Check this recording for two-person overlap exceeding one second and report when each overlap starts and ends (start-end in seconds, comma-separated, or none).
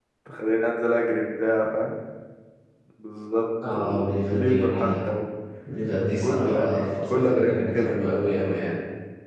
3.7-5.1, 6.2-8.0